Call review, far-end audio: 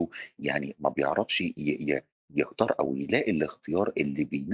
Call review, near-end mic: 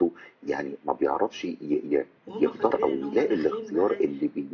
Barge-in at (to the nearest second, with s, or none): 2 s